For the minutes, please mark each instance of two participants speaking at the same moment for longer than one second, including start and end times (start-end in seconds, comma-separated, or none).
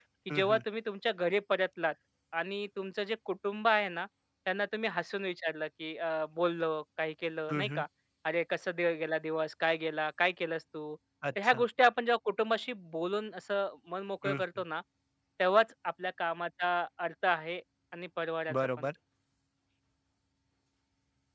none